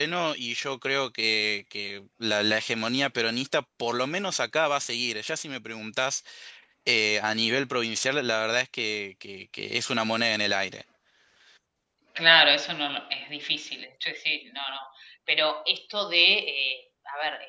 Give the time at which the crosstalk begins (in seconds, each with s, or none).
none